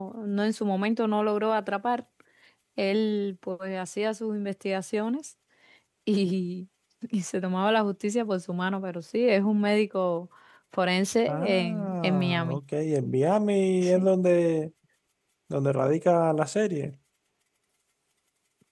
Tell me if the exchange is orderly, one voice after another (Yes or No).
No